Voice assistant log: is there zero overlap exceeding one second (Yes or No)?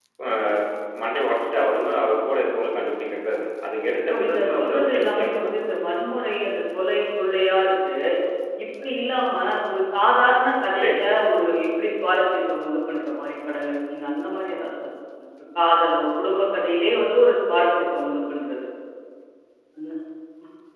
No